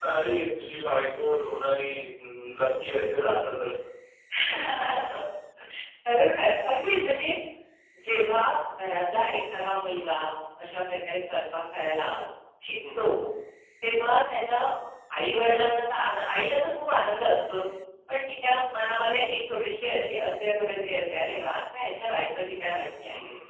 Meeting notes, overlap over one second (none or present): none